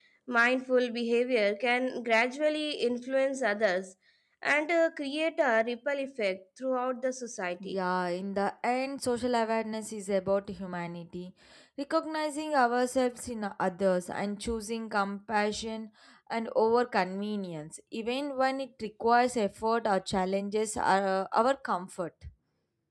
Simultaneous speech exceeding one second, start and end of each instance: none

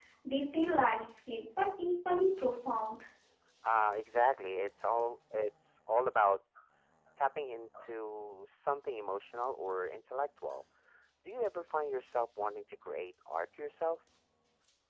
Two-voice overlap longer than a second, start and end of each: none

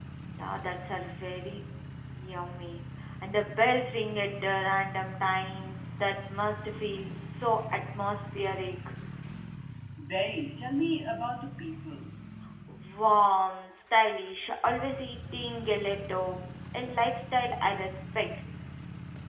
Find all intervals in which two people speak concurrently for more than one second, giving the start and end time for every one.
none

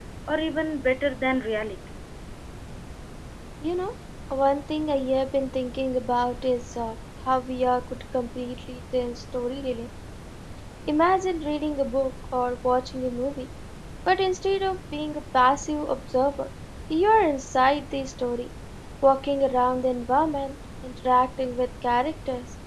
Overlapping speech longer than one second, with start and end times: none

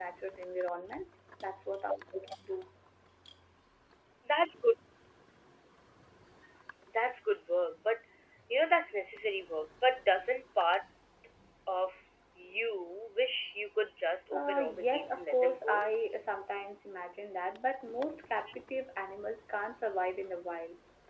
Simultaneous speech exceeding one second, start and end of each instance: 14.3-15.9

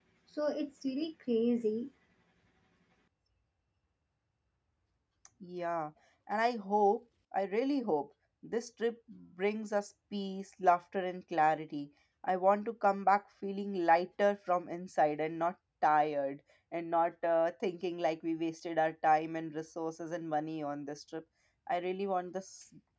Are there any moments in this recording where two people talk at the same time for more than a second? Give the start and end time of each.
none

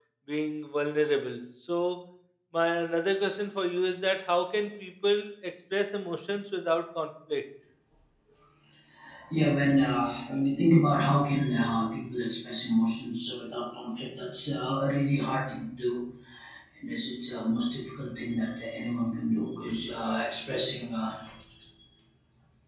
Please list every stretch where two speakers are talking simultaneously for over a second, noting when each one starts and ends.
none

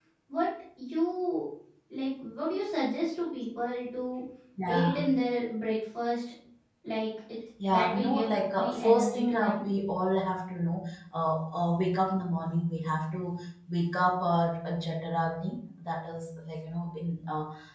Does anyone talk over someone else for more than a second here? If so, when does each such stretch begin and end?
7.7-9.6

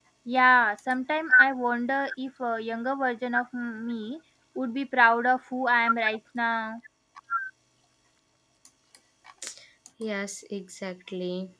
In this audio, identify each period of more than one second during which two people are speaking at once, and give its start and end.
none

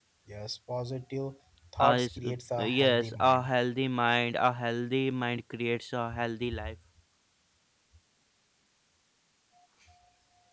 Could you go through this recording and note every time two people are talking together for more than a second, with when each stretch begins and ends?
1.8-3.5

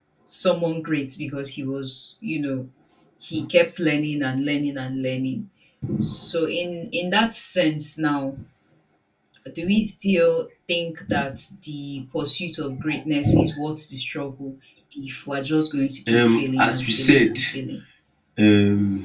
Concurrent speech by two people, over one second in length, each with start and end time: 16.1-17.3

